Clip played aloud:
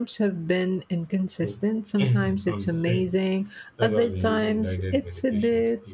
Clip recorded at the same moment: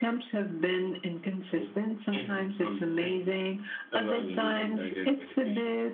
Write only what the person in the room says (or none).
none